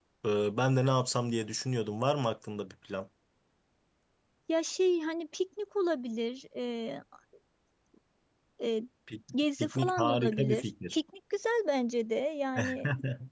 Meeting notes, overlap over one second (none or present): present